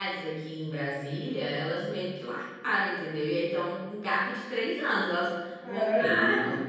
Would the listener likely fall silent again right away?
No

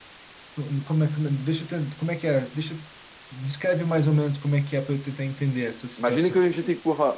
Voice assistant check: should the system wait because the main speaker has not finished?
No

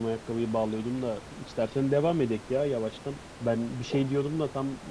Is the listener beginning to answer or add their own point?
No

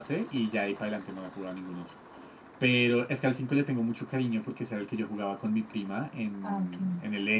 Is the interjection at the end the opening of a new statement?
No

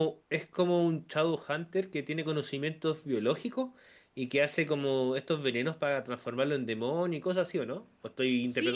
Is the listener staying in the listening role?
No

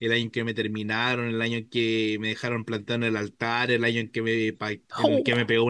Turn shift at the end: No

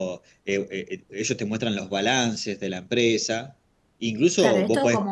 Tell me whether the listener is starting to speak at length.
Yes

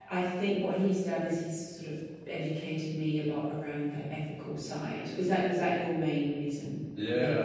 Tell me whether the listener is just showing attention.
No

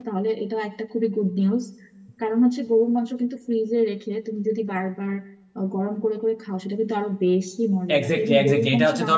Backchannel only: No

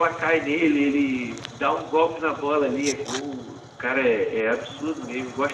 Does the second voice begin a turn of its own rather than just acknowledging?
Yes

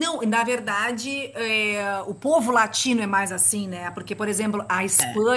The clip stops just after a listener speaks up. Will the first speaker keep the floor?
Yes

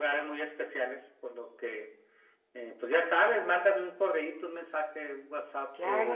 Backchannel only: No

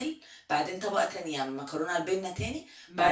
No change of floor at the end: No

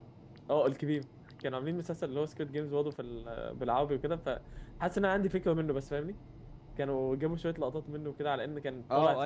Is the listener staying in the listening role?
No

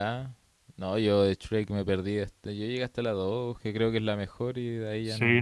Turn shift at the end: Yes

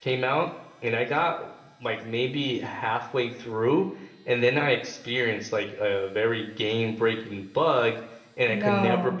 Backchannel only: Yes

